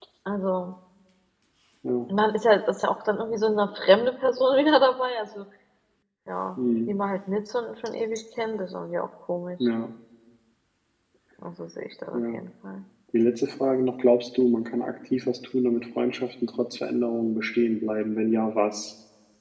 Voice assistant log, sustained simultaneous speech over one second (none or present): none